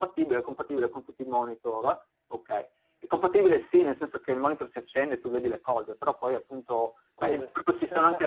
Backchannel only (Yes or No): Yes